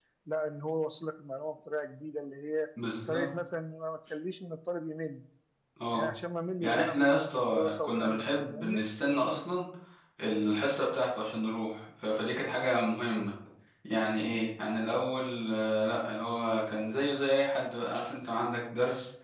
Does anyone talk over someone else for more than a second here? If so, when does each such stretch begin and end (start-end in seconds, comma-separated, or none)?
6.6-8.8